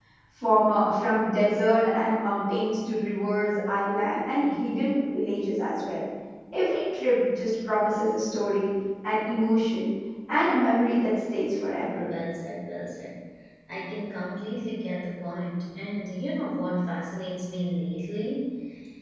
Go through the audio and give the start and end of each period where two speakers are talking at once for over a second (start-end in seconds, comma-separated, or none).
none